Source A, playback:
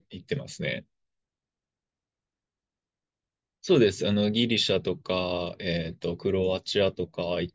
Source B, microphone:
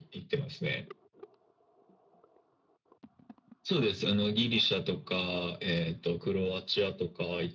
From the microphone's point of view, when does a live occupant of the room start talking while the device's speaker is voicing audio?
none

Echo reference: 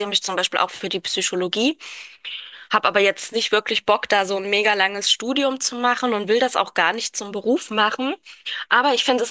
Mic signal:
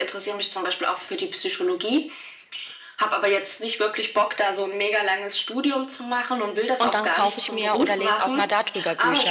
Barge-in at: 6.8 s

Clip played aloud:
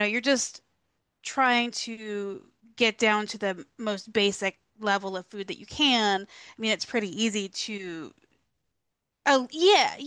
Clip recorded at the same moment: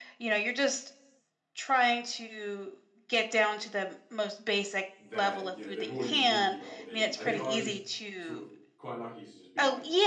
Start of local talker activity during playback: 5.0 s

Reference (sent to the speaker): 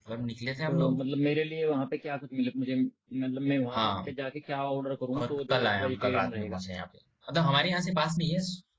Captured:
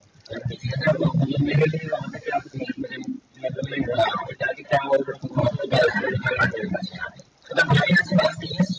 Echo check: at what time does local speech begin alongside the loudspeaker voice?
none

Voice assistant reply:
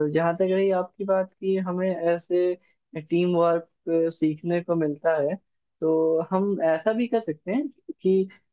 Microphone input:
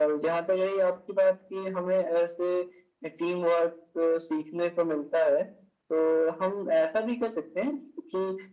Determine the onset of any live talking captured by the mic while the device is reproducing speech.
none

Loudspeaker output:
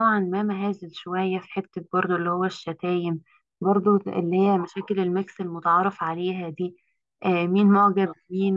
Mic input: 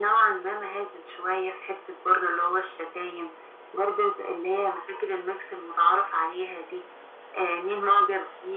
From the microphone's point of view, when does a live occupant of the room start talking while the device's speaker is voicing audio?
none

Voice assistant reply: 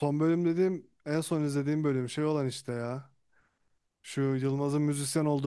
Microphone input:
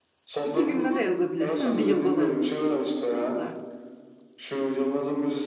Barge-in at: 0.4 s

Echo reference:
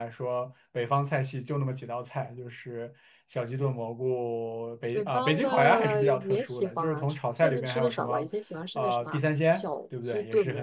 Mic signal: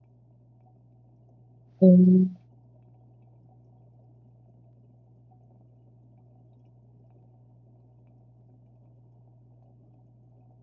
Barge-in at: 1.8 s

